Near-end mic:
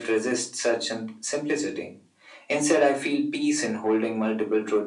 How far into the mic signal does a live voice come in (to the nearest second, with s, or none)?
none